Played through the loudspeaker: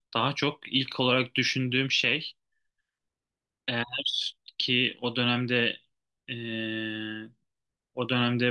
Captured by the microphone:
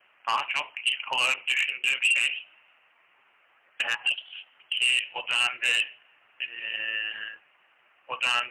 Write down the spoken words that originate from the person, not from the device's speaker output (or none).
none